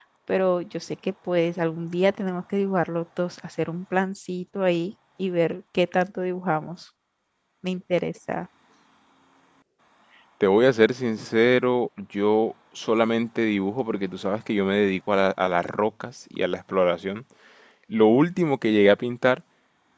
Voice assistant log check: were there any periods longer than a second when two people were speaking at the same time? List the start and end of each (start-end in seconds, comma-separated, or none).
none